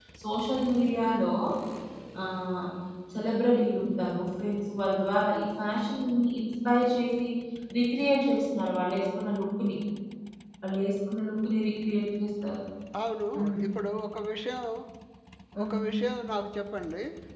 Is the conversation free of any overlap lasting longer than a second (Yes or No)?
Yes